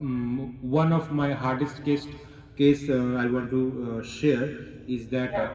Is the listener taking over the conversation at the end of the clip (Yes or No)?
No